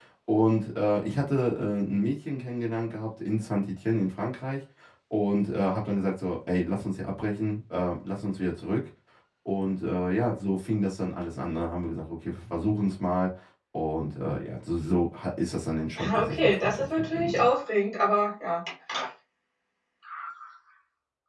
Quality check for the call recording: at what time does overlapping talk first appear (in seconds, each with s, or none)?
16.0 s